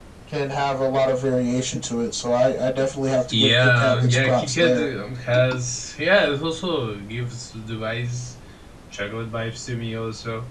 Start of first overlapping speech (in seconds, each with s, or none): 3.1 s